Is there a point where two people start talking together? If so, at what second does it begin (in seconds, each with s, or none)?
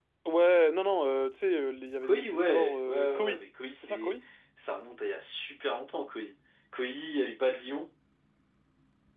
2.0 s